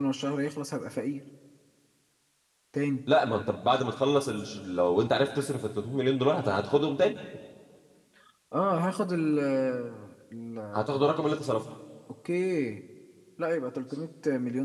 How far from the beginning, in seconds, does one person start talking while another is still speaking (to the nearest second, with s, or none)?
none